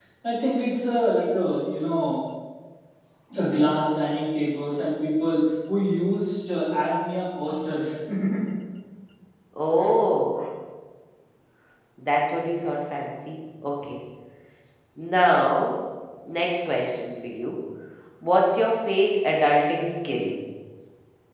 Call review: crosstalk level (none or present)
none